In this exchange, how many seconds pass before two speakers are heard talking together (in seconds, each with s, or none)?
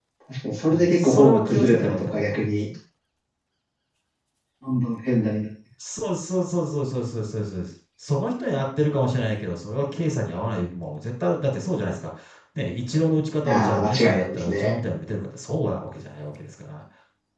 0.7 s